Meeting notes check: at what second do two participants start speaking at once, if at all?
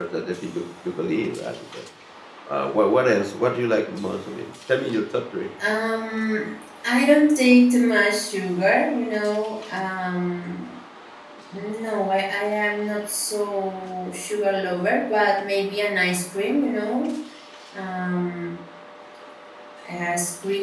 none

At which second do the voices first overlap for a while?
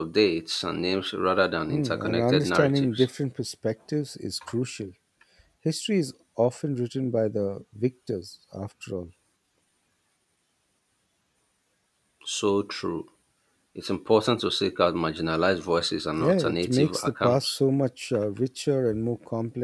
1.7 s

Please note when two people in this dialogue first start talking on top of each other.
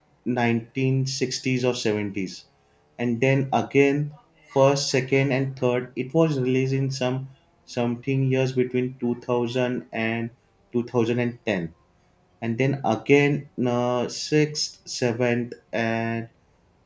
none

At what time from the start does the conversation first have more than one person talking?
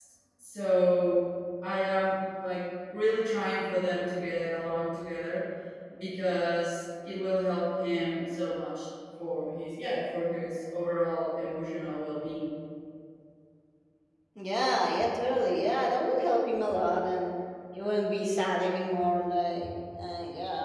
none

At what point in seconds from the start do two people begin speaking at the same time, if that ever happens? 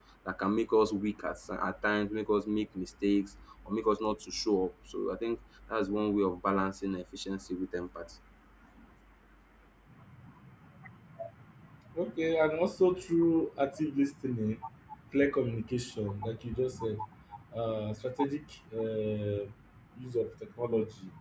none

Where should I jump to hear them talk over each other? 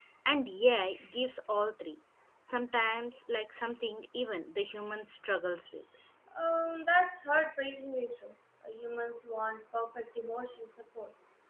none

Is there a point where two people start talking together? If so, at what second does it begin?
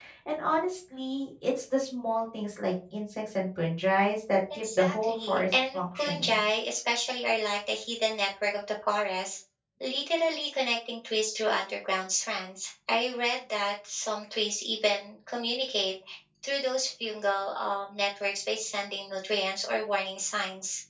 4.6 s

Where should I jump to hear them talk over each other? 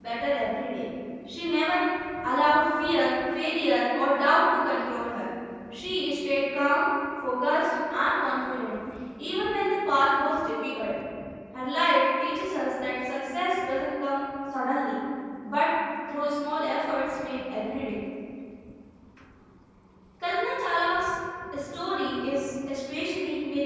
none

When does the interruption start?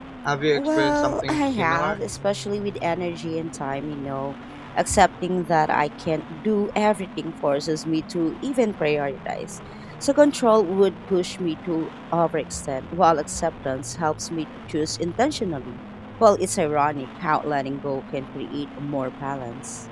0.5 s

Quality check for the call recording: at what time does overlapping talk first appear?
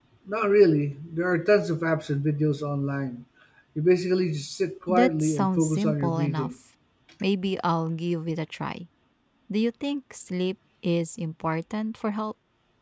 4.9 s

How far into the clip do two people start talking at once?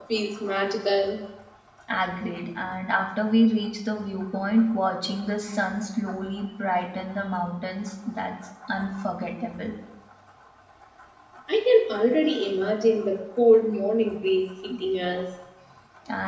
none

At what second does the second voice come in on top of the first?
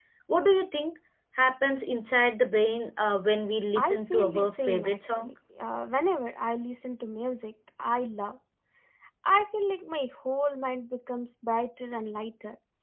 3.8 s

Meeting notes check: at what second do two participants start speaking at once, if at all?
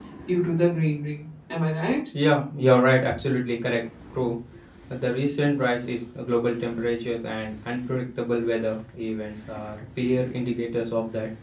none

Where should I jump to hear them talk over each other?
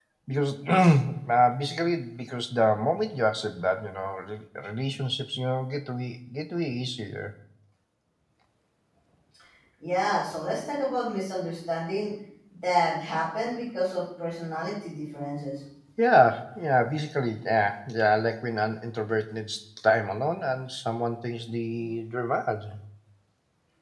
none

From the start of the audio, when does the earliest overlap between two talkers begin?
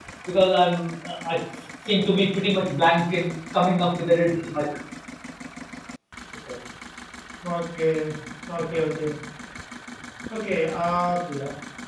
none

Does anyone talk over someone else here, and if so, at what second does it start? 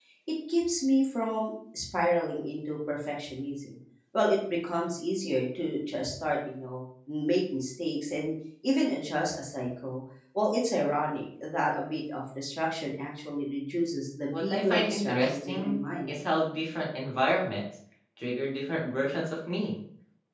14.3 s

